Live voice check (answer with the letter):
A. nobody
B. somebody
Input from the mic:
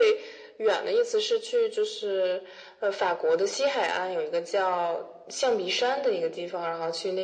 A